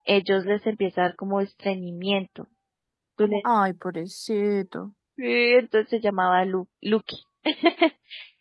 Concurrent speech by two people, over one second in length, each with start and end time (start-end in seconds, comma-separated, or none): none